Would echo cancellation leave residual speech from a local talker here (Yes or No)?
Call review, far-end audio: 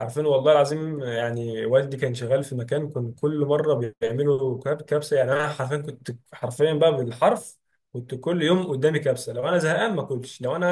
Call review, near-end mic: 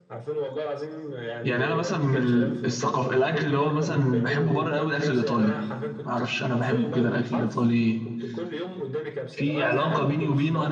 Yes